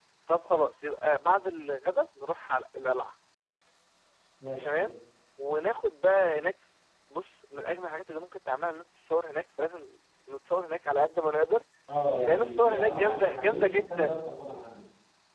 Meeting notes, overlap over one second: present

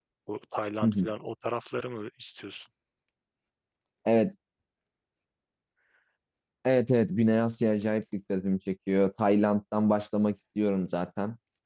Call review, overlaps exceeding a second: none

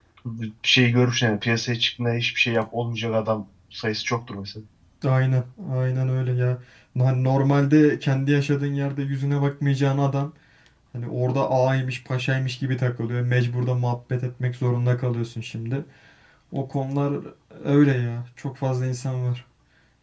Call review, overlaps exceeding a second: none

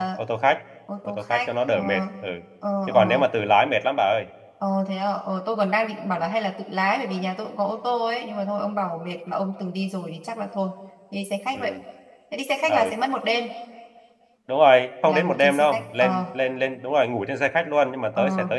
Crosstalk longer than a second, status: present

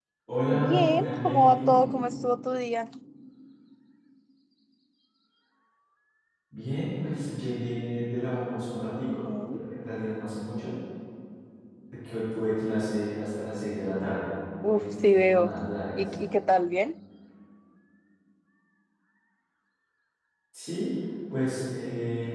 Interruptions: present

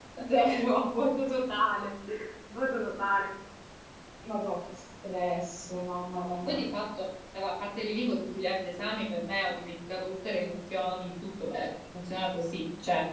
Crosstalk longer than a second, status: none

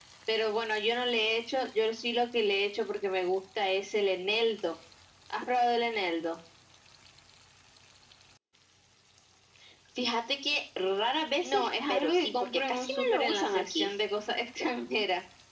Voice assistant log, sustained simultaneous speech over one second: present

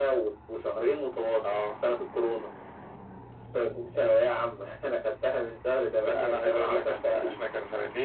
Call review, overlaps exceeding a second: present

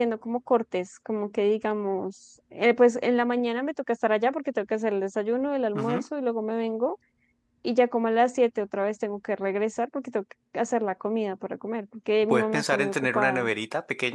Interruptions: present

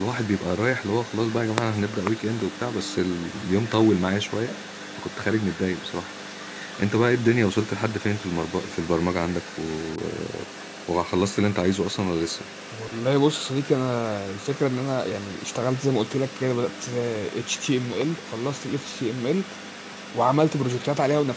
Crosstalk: none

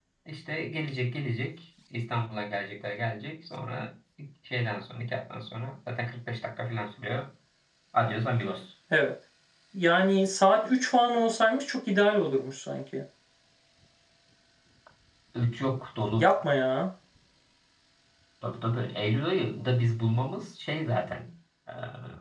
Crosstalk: none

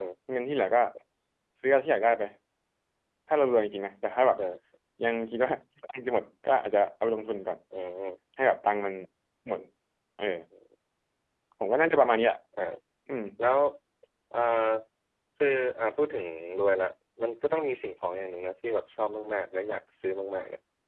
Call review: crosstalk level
none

